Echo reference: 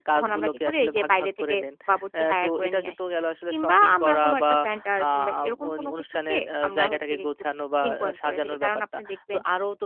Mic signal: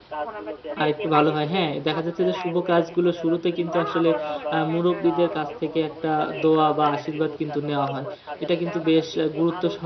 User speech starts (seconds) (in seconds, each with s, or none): 0.8 s